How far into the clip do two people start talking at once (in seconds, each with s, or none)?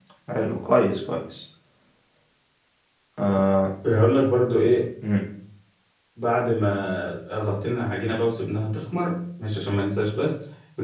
none